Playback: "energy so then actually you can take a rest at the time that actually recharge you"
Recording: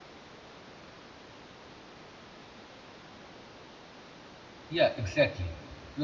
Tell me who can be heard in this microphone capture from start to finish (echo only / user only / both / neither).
user only